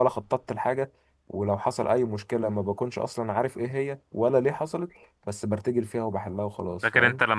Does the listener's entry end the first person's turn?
Yes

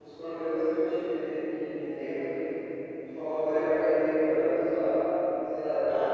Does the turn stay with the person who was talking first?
Yes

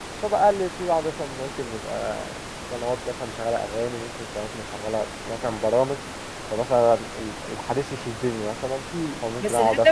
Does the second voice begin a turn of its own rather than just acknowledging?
Yes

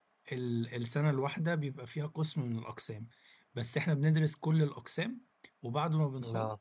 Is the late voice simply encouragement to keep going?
Yes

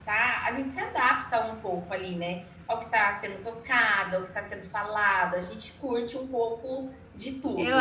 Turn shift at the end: Yes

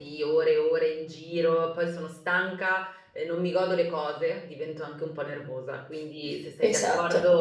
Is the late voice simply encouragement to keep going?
Yes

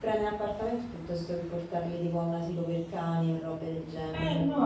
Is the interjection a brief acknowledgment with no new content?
No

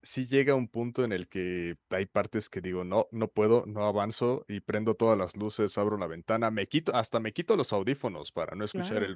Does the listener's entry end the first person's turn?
No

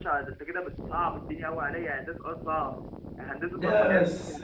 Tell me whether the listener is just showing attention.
Yes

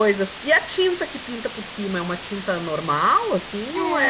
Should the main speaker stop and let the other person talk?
Yes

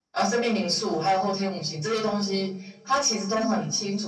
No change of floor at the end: Yes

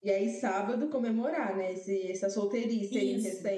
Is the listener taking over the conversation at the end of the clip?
Yes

